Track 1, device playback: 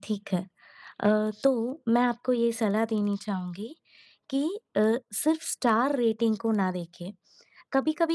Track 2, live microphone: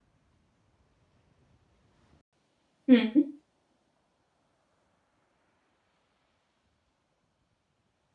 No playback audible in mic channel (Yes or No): Yes